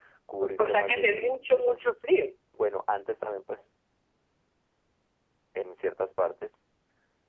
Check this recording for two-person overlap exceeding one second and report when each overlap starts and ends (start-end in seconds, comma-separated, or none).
0.6-1.9